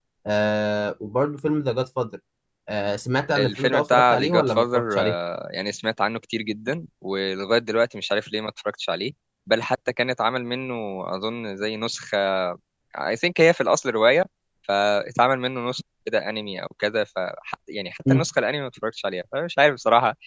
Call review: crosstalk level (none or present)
present